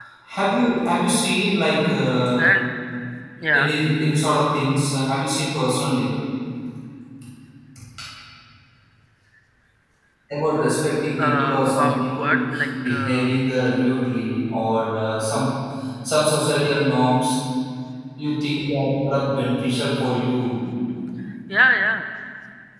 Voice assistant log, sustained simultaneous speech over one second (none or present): present